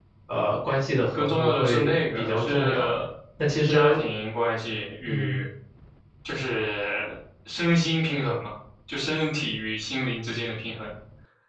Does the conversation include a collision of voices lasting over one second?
Yes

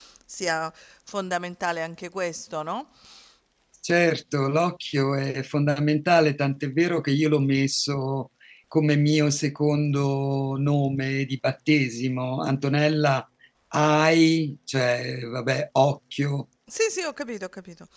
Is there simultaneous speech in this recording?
No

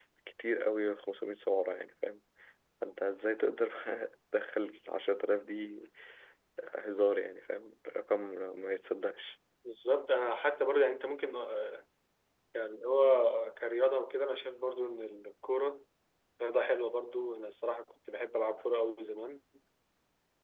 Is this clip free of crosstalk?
Yes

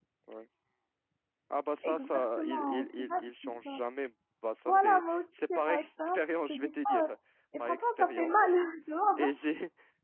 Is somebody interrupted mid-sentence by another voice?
Yes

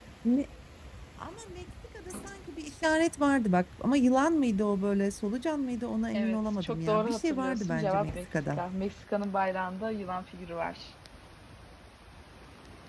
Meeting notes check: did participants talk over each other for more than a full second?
Yes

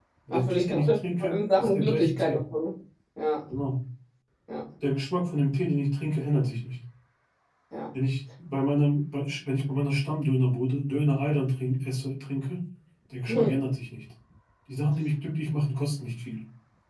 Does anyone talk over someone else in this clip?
Yes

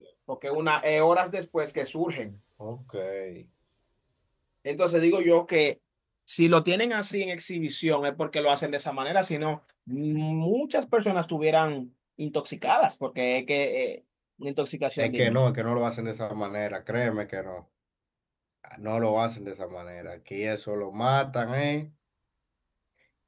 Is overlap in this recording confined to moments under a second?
Yes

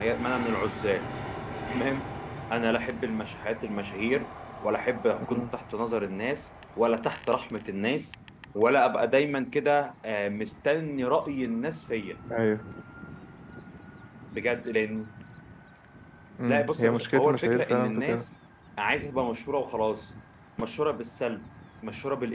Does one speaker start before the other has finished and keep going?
Yes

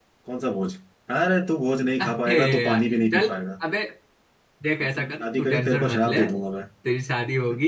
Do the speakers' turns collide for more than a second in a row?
Yes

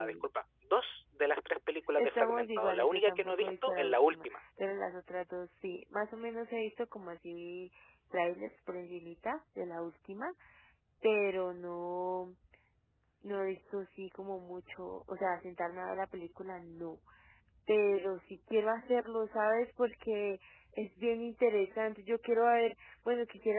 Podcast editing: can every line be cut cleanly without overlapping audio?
No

